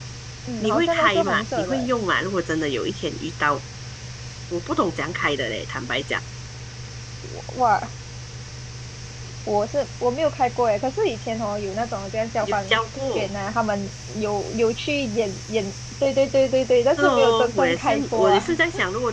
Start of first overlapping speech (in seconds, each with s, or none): 0.6 s